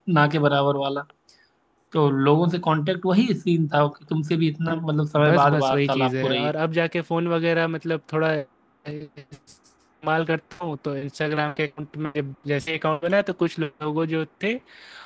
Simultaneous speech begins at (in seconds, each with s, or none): 5.2 s